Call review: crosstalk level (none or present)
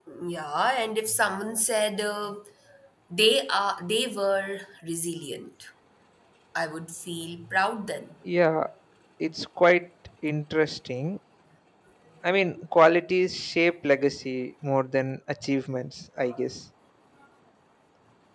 none